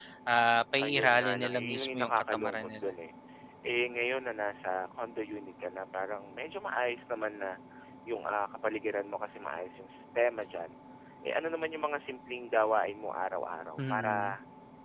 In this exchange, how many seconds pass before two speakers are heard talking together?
0.8 s

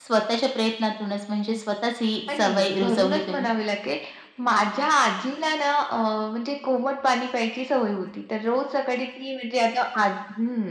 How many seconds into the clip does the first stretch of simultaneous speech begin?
2.3 s

